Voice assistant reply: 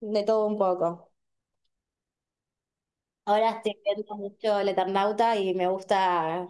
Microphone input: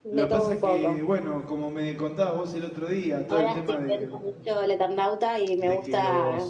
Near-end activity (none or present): present